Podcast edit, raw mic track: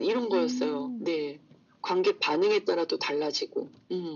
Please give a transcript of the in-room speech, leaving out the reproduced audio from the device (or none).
음.